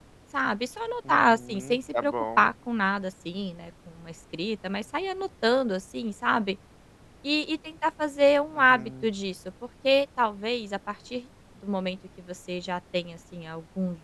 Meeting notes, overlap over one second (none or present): present